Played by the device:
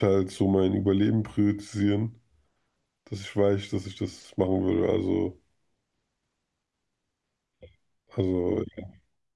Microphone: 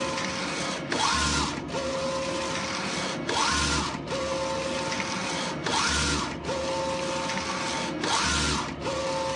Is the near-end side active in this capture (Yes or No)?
No